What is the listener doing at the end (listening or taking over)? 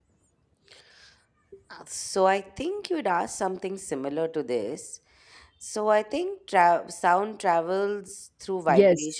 taking over